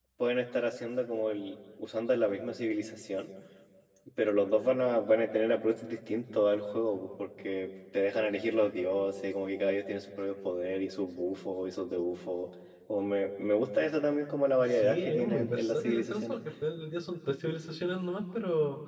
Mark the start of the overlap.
15 s

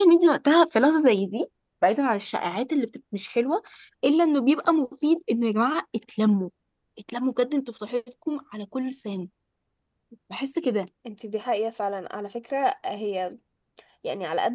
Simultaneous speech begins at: none

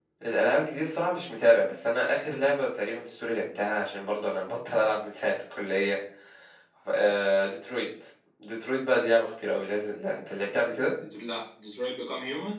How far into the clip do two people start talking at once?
none

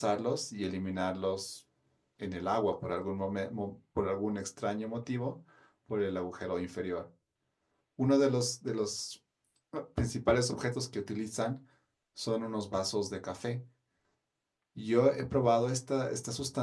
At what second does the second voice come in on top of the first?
none

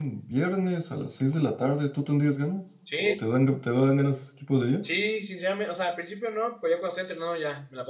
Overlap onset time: none

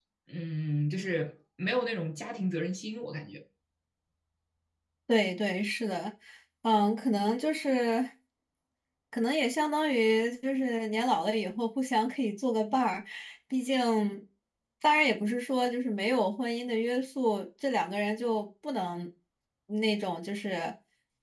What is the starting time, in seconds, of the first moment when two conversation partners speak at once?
none

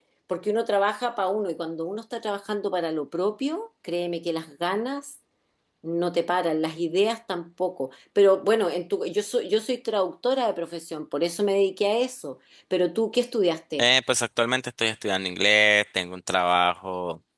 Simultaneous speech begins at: none

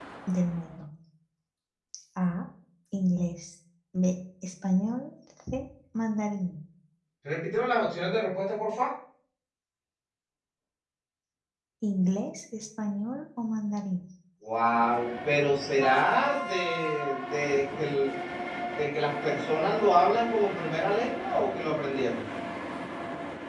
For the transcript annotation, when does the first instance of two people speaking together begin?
none

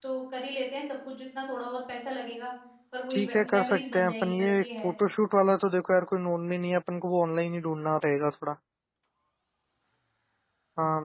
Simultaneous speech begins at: 3 s

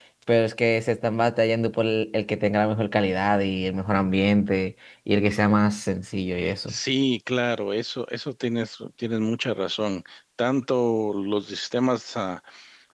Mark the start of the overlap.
none

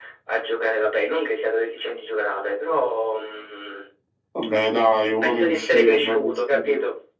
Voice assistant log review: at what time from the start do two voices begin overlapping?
5 s

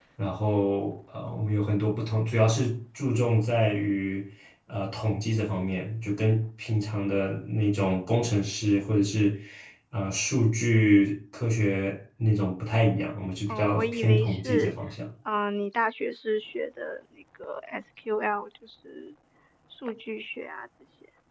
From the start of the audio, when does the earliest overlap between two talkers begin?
13 s

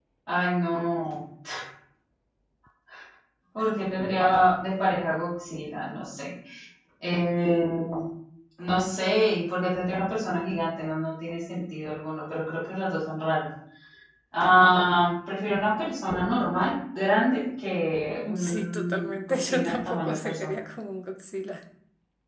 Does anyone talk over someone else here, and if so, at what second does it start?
18 s

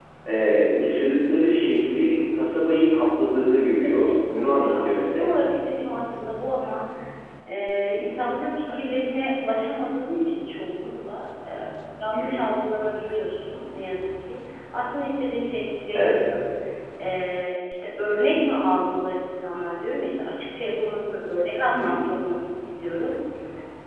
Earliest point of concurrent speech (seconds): 4 s

